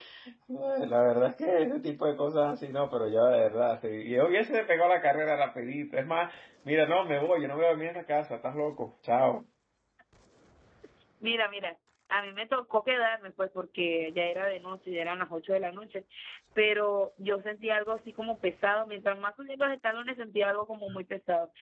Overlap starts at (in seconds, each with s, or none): none